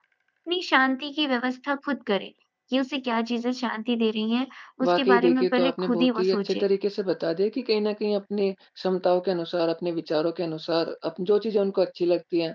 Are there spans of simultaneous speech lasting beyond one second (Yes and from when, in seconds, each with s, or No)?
Yes, from 4.8 s